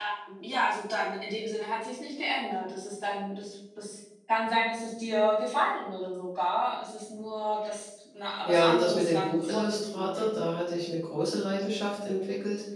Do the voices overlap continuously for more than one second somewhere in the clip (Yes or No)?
Yes